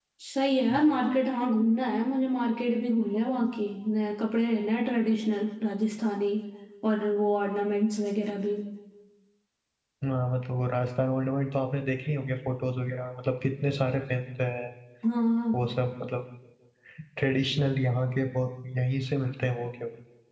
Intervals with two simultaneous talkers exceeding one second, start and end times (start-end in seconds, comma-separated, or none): none